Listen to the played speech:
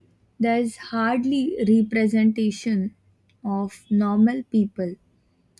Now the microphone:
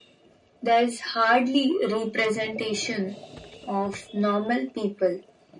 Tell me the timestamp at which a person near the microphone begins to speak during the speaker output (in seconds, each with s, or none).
none